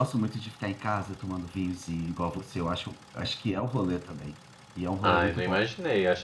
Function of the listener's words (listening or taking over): taking over